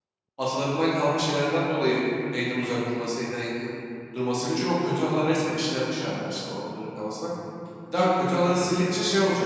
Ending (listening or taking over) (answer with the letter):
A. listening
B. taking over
A